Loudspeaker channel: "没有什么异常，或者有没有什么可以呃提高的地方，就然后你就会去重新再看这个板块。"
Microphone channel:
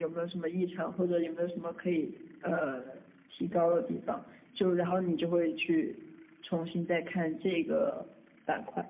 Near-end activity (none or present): none